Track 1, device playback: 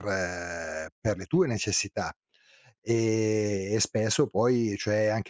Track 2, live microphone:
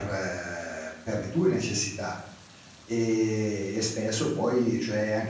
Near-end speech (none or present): none